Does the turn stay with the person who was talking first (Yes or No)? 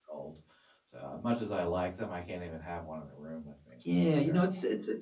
No